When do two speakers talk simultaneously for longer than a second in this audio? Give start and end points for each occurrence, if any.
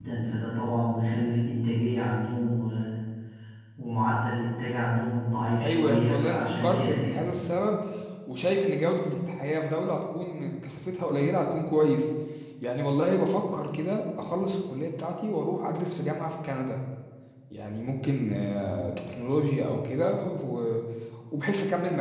5.6-7.2

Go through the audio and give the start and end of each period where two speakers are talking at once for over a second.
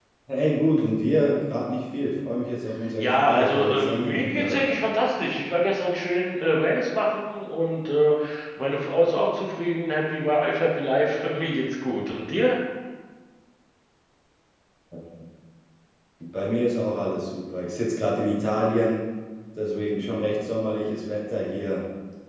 3.0-4.6

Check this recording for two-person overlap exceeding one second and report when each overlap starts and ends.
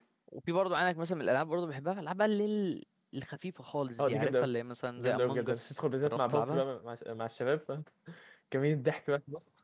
5.0-6.6

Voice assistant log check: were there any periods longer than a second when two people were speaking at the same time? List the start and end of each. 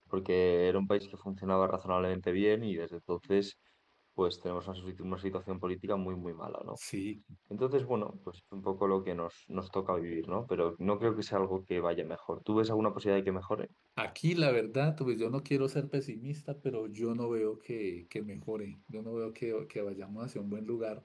none

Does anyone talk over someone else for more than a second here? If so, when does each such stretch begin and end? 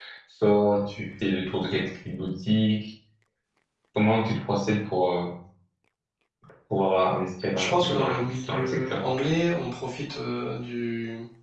7.6-9.0

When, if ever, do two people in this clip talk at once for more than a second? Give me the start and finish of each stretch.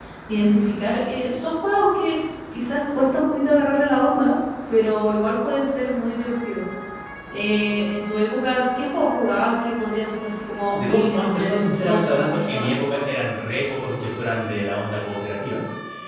10.8-12.7

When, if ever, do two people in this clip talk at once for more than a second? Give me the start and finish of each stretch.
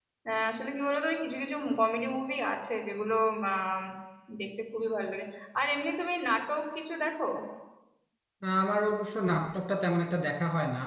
none

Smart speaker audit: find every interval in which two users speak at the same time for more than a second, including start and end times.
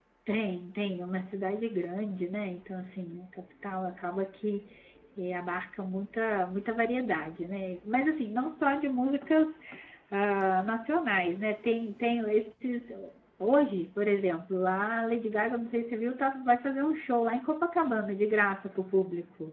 none

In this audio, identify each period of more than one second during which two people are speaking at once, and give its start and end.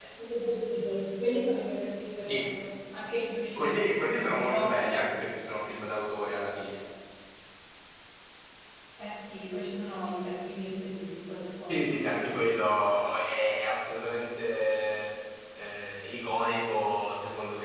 3.5-5.1

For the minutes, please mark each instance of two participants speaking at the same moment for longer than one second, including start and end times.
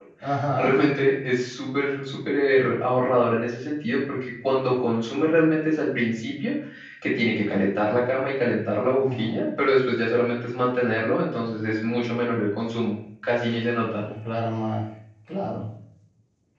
none

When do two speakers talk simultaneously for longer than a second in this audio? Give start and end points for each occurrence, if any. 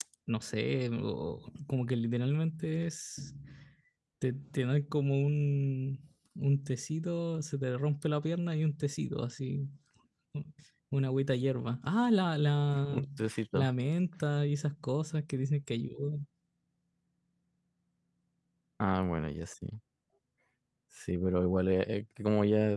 none

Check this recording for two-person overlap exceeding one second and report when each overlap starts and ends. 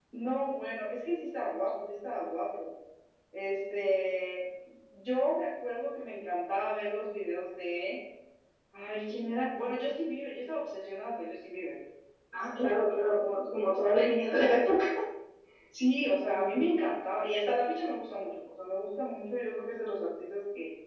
none

